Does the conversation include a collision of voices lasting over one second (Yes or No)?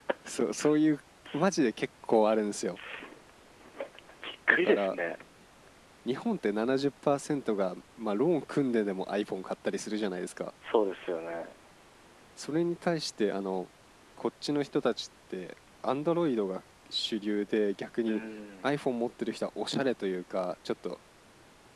No